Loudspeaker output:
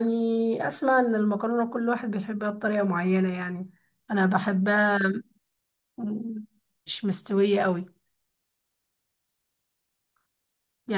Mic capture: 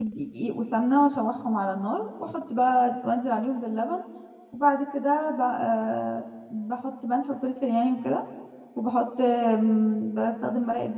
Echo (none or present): none